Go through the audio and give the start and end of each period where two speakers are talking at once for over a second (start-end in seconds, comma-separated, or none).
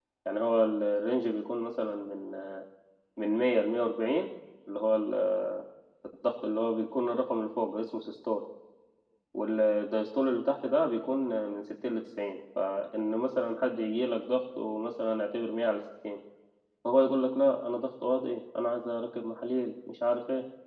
none